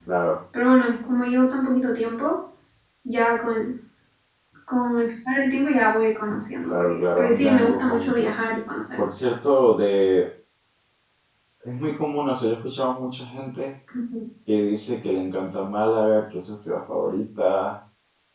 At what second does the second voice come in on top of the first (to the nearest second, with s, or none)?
7 s